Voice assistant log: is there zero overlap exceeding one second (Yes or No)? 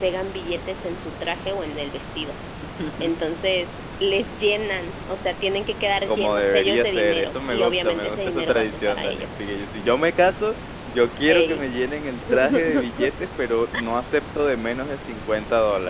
No